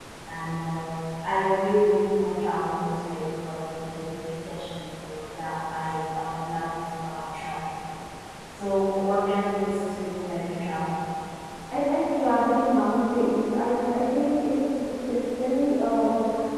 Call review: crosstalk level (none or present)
none